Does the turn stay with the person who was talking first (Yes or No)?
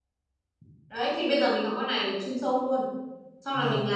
No